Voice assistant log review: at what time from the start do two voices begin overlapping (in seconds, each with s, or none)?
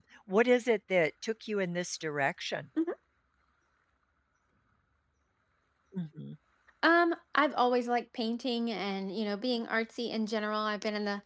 none